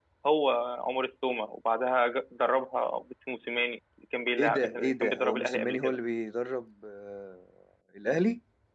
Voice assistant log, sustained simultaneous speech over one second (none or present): present